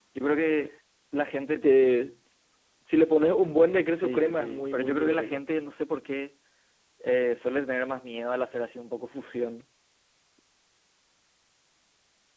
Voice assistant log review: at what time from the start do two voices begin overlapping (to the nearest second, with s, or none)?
4 s